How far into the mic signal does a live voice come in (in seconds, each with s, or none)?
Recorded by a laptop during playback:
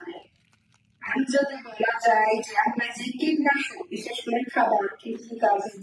none